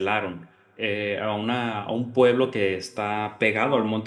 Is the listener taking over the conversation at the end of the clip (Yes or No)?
No